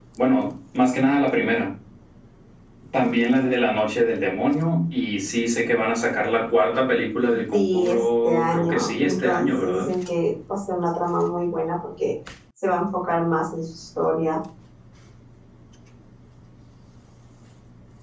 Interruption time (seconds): 7 s

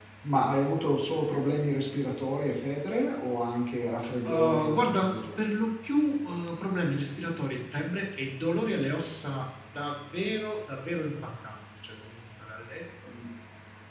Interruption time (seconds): 4 s

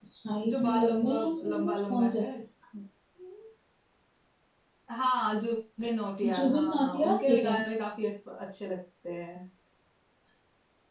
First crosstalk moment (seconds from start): 1 s

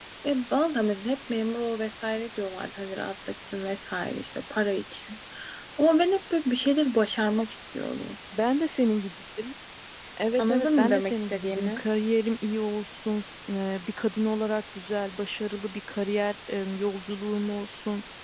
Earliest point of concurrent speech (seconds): 10 s

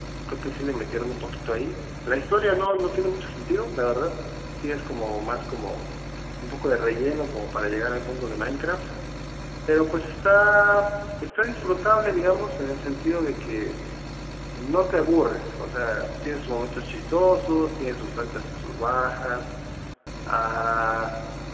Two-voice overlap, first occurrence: none

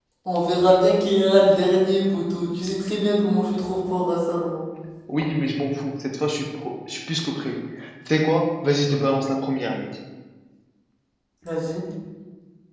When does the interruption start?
none

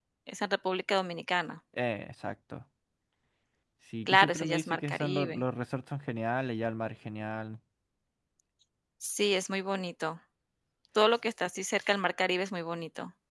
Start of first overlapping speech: 4 s

